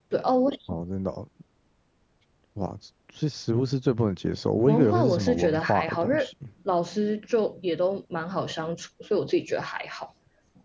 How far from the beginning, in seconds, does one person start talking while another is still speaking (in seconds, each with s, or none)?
4.7 s